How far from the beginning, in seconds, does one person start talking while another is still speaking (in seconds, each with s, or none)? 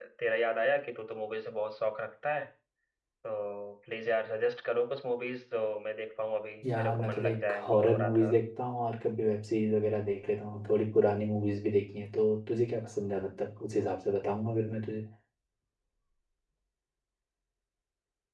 6.6 s